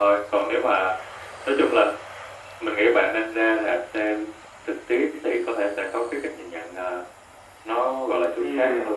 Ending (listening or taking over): taking over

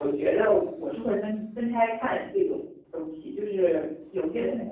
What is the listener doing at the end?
listening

